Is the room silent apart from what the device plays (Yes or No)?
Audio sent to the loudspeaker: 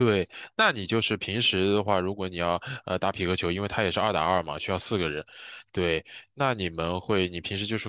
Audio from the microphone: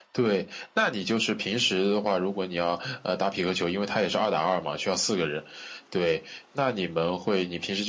Yes